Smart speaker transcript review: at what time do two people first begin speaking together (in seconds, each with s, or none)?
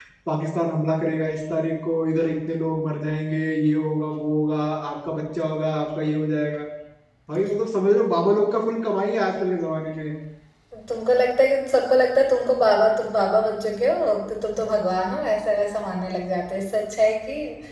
none